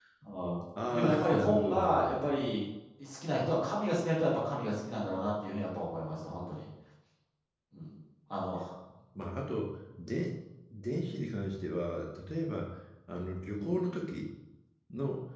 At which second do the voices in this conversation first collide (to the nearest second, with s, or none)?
1 s